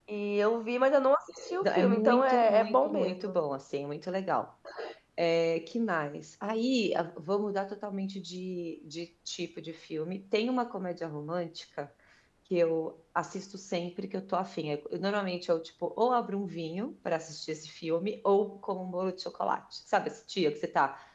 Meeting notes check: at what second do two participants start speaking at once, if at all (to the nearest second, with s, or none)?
2 s